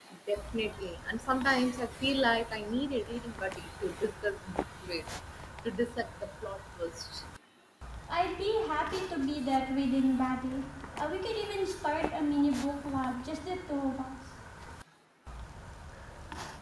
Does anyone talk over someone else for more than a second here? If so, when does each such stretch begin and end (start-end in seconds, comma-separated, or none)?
none